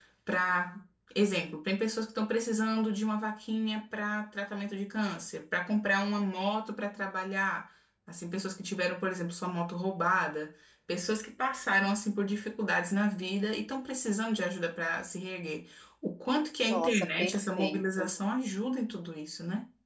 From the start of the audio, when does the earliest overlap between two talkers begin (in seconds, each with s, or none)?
16.6 s